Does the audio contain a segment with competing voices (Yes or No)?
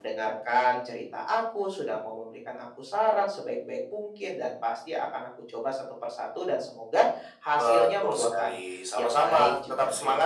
Yes